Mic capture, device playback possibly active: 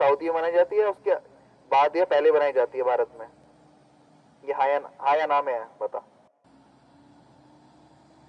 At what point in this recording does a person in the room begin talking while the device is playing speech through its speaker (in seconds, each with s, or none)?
none